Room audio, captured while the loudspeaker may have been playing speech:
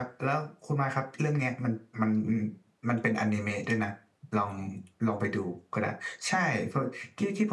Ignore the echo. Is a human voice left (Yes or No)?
No